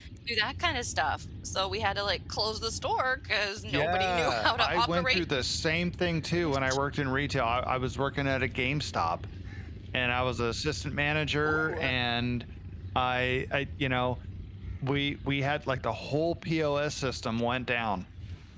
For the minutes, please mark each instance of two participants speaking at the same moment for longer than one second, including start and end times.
3.7-5.2

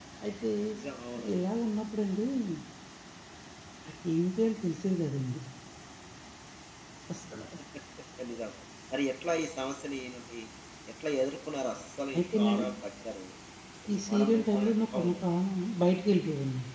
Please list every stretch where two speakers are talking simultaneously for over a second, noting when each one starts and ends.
13.9-15.1

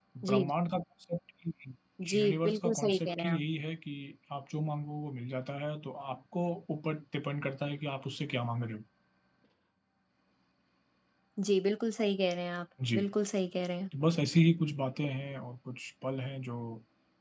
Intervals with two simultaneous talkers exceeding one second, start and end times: 2.2-3.4

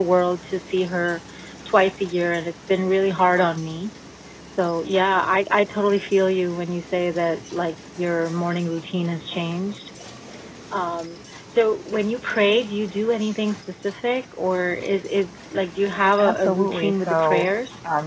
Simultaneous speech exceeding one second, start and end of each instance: 16.2-17.4

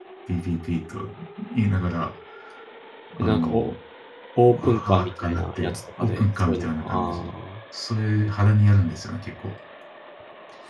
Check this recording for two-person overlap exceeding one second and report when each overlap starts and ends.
4.5-7.2

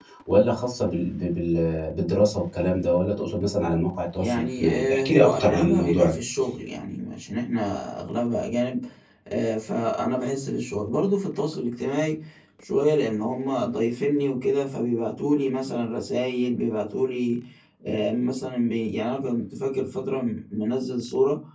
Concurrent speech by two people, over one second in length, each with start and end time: 4.2-6.2

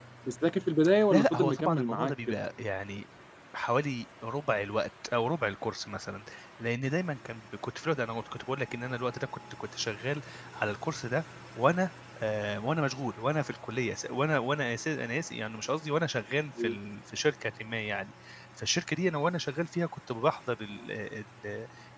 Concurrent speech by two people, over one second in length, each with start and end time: 1.1-2.4

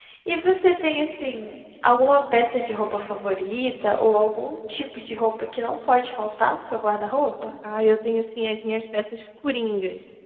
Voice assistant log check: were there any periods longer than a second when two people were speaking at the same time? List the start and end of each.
none

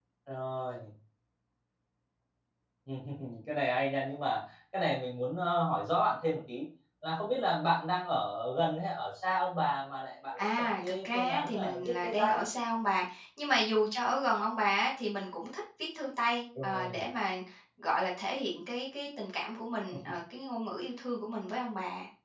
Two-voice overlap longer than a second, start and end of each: 10.4-12.4

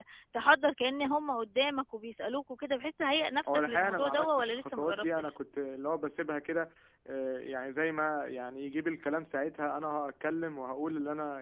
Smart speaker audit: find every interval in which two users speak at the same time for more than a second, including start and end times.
3.5-5.3

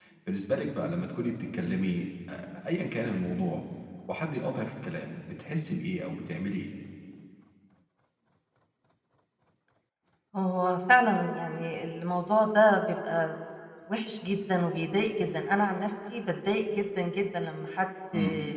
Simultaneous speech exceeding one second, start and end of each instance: none

